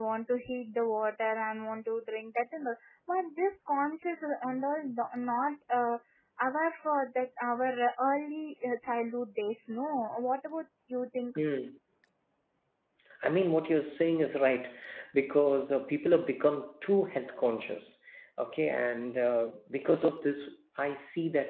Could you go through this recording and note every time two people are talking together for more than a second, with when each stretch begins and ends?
none

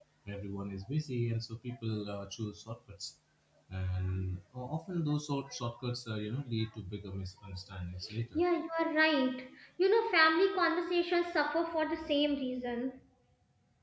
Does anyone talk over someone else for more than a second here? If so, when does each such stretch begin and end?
none

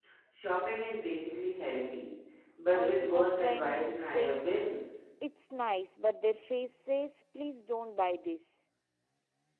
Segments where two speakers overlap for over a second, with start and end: 2.7-4.5

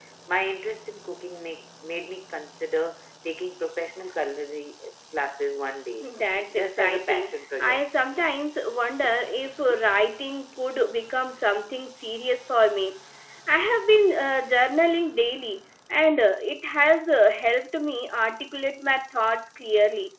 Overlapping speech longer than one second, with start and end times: 6.5-7.8

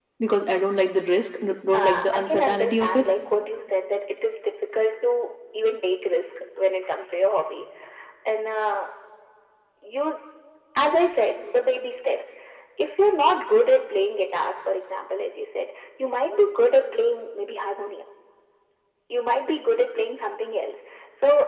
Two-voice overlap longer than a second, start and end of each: 1.7-3.0

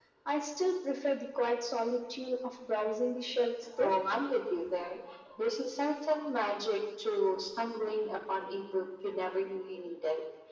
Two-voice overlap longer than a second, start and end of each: none

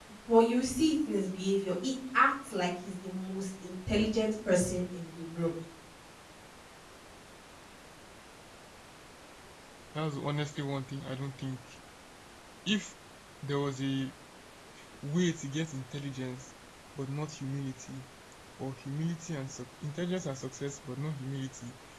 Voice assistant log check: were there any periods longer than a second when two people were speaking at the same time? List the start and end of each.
none

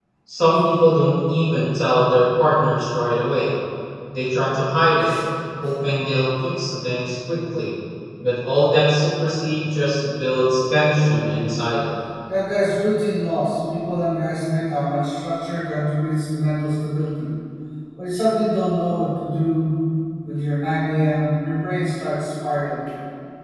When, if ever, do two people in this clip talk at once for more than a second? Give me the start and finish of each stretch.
none

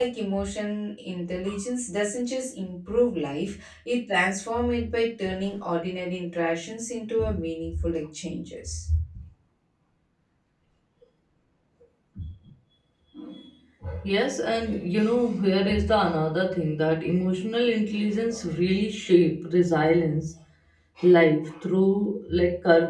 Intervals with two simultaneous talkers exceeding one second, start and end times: none

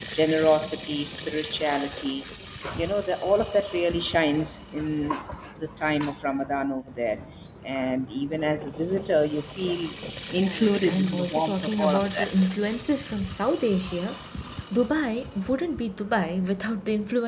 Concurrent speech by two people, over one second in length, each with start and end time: 10.4-12.4

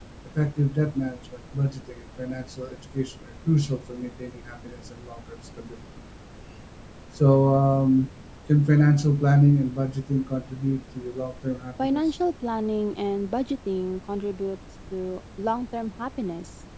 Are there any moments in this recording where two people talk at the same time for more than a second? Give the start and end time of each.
none

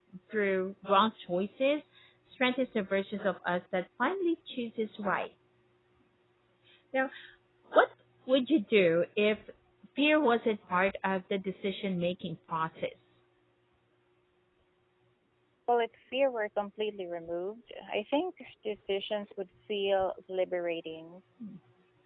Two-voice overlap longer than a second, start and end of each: none

